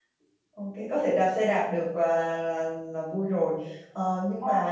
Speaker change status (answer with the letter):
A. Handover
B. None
B